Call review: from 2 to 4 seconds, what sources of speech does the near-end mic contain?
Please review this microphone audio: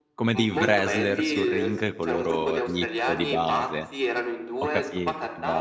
both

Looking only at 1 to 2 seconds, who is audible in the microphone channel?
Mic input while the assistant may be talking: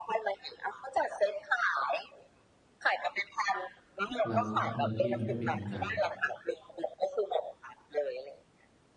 echo only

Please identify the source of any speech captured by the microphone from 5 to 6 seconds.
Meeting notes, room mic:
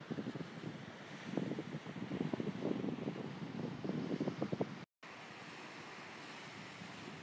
neither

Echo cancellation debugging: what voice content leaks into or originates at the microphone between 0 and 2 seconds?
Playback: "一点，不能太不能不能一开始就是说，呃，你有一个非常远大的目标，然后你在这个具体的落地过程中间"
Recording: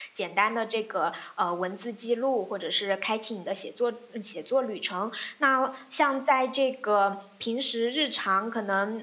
user only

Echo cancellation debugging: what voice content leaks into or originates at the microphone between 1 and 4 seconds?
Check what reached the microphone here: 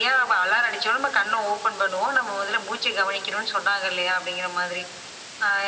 echo only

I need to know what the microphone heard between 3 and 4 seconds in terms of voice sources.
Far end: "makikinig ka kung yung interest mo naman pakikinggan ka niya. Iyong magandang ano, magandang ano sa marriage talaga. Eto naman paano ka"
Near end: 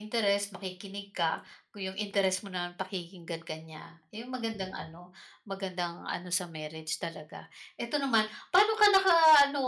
echo only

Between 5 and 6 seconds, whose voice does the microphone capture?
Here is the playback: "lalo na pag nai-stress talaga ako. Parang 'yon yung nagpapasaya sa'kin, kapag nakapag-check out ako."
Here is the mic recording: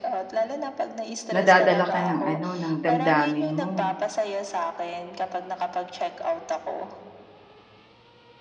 echo only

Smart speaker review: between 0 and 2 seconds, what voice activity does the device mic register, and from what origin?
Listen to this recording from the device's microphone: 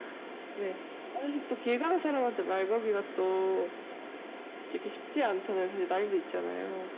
echo only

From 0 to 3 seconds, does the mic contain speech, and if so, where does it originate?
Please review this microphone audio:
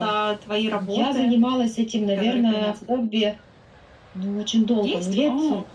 echo only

